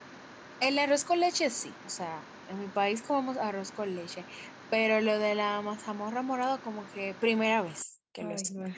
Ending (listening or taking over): taking over